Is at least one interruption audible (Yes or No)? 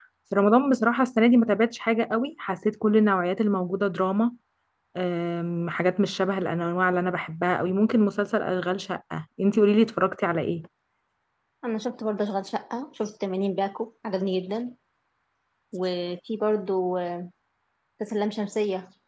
No